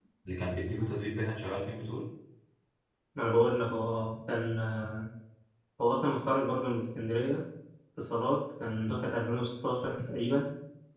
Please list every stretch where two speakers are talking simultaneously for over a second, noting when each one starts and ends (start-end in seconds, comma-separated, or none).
none